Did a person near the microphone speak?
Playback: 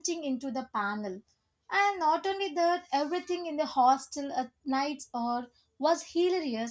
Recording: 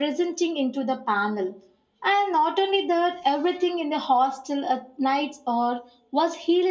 No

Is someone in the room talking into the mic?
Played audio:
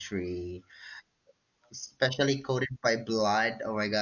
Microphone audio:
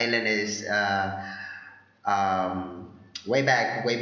Yes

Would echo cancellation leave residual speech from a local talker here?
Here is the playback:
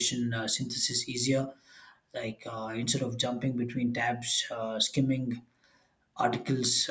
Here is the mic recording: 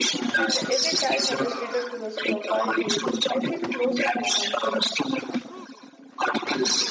Yes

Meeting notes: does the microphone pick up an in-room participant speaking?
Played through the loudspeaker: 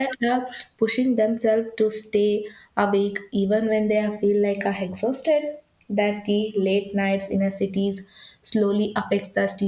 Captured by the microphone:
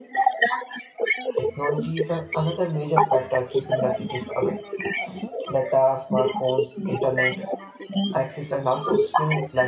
Yes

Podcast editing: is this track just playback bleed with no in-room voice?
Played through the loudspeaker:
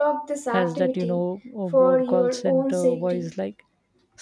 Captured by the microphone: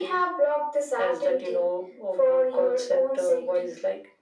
Yes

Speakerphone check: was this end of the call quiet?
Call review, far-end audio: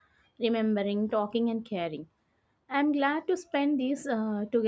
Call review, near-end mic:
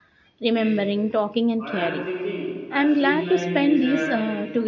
No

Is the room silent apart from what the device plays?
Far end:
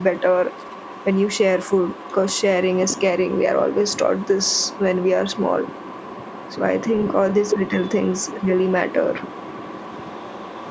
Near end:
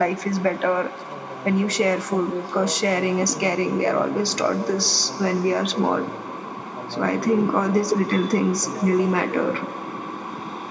No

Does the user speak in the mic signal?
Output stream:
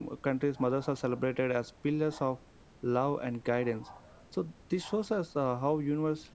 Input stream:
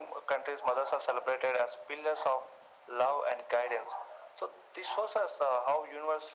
No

